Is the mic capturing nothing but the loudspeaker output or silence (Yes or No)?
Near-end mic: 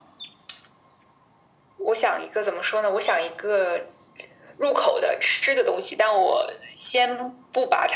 Yes